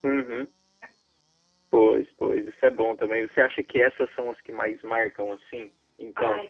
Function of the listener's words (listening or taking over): taking over